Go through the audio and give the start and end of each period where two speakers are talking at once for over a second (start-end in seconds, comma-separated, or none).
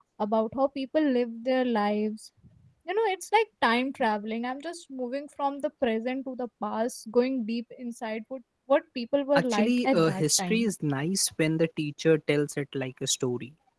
9.3-10.6